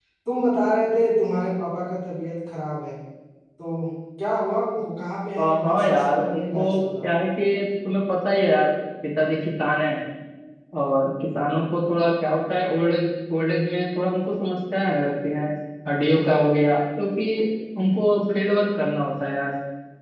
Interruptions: present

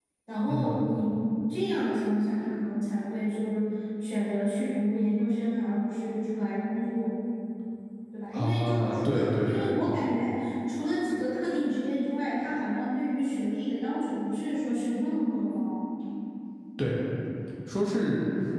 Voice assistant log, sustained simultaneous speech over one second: present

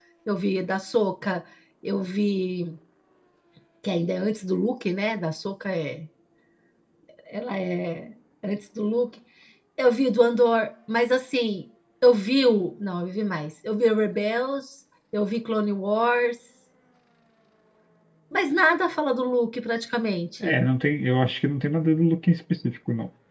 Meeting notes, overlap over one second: none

